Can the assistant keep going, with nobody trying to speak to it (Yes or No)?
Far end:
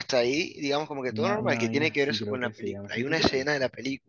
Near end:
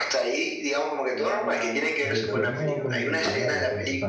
No